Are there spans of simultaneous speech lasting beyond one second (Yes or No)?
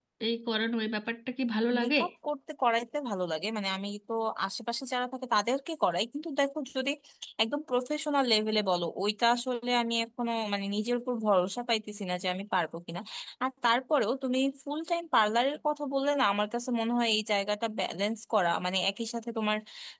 No